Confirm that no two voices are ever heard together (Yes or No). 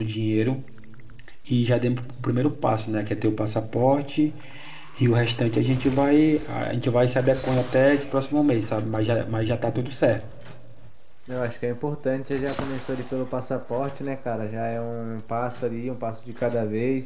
Yes